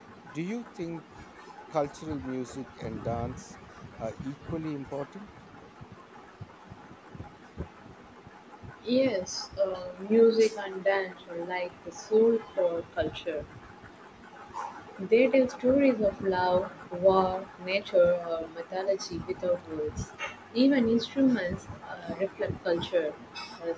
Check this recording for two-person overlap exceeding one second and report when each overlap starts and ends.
none

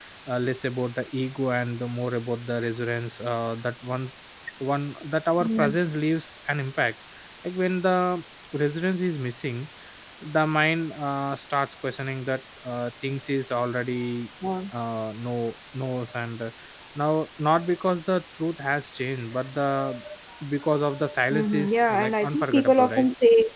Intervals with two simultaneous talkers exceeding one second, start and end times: 21.3-23.1

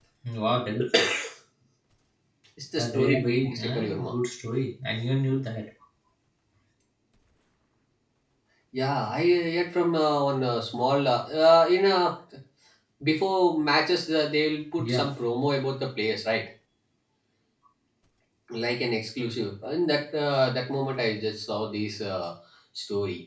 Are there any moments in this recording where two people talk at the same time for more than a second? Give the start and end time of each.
2.8-4.1

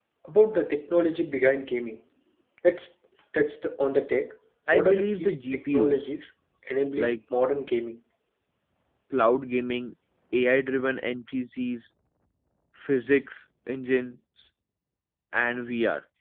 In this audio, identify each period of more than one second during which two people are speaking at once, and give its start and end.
4.7-6.1

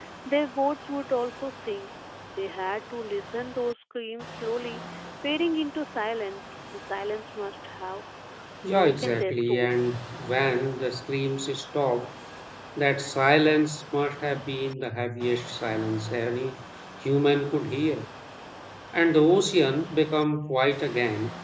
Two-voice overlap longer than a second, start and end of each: 8.6-9.9

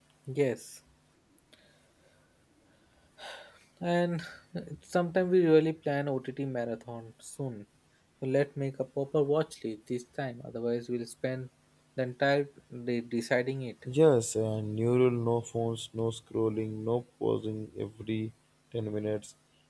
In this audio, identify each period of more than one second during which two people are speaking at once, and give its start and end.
none

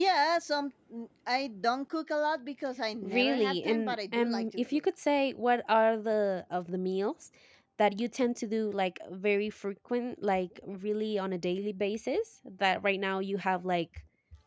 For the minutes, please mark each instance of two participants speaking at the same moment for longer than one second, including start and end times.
3.0-4.8

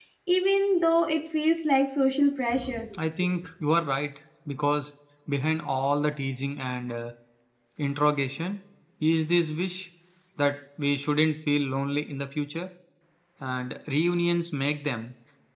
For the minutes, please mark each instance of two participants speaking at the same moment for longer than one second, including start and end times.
none

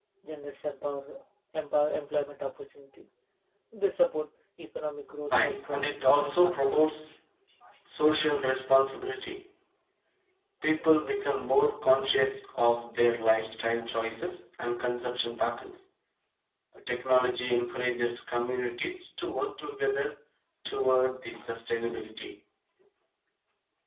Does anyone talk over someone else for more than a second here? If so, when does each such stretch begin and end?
5.3-6.8

